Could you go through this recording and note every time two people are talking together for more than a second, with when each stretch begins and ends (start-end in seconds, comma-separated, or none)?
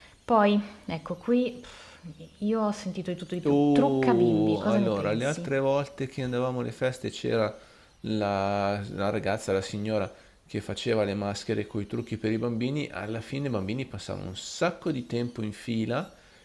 3.4-5.5